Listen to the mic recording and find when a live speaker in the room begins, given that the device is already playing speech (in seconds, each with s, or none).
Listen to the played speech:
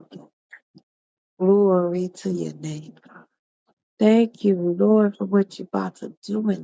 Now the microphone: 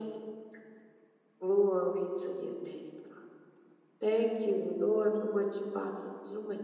none